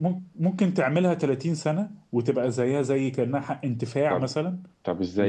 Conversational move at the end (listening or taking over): taking over